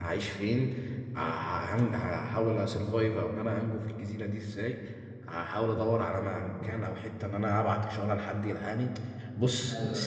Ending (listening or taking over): listening